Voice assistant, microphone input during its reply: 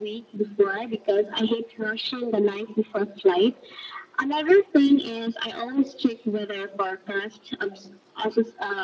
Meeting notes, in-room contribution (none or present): none